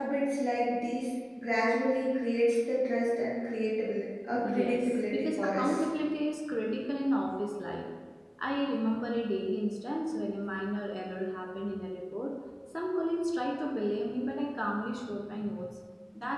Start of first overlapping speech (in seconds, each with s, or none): 4.4 s